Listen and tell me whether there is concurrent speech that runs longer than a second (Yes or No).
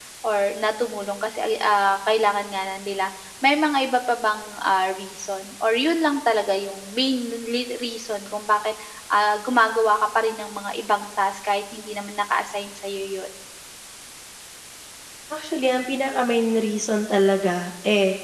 No